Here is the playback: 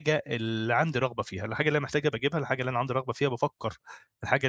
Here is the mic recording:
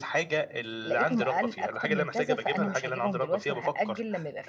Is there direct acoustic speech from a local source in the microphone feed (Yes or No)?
Yes